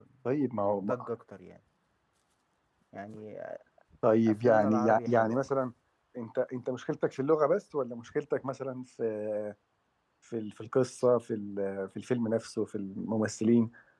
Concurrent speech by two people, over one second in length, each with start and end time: 4.3-5.5

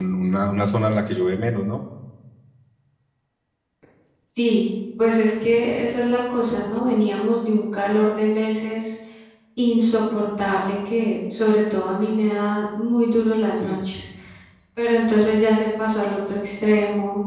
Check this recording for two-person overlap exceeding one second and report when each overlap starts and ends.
none

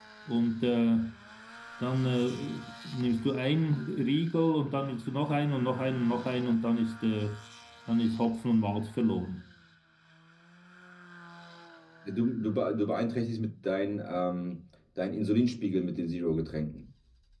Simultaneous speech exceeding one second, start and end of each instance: none

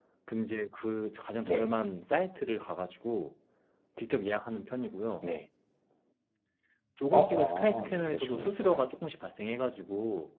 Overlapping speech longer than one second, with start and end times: 7.1-8.9

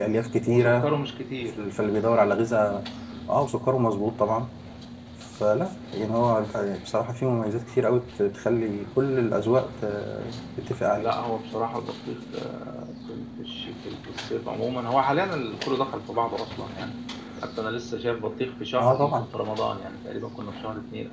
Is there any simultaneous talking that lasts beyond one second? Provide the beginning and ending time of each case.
none

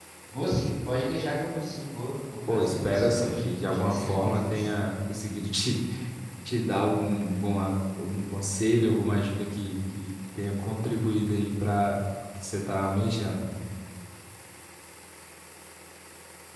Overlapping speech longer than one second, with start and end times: 2.5-4.8

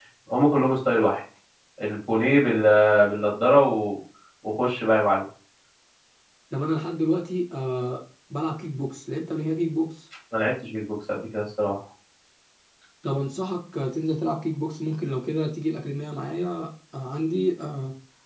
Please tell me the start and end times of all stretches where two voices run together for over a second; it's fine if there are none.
none

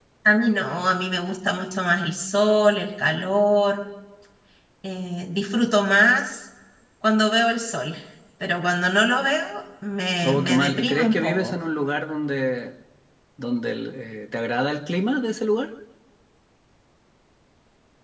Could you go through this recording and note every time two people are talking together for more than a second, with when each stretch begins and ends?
10.2-11.5

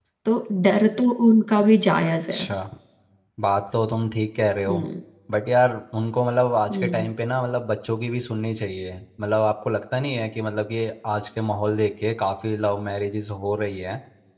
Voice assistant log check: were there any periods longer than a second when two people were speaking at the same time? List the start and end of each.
none

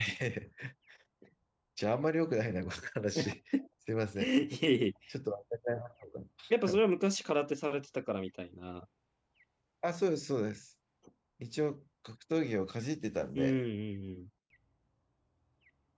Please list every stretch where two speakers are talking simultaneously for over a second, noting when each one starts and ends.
none

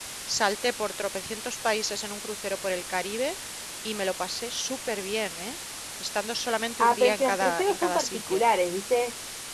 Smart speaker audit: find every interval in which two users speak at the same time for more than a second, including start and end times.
6.8-8.4

